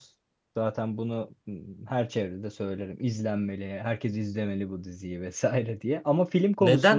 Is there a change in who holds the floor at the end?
Yes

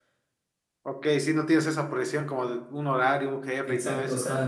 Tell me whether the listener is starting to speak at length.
Yes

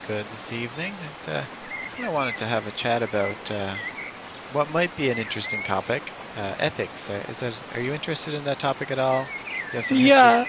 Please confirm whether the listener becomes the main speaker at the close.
Yes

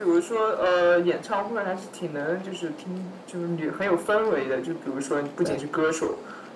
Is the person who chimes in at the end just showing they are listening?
Yes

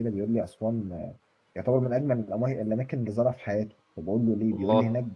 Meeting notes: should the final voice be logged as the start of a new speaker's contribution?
No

